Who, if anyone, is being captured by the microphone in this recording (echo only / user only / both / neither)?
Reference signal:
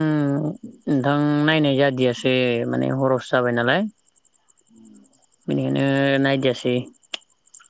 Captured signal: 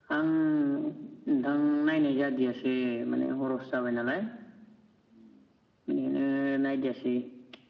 echo only